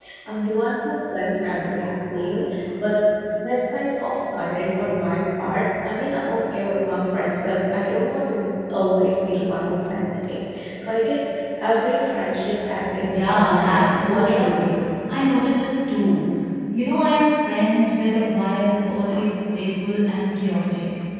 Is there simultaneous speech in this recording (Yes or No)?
Yes